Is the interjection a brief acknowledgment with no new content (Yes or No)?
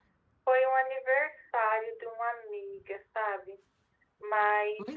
No